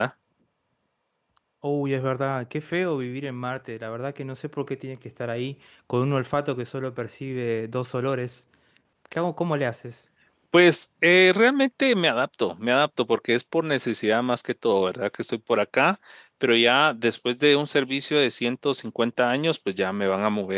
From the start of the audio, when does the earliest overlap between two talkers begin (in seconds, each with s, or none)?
none